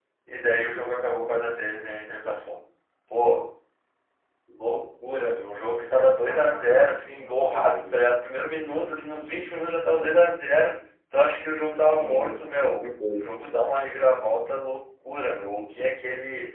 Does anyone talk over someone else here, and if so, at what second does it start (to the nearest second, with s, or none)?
6 s